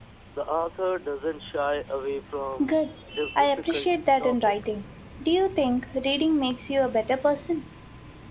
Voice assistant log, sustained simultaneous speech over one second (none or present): present